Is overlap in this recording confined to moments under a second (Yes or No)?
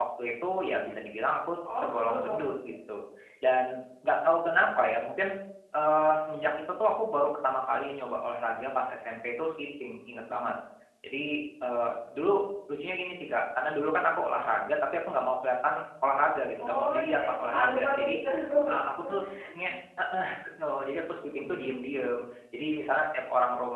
No